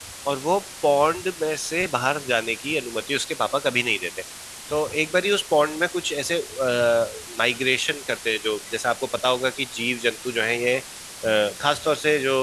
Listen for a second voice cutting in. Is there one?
No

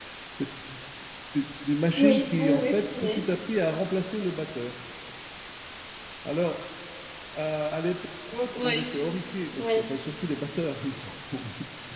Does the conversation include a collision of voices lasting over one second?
Yes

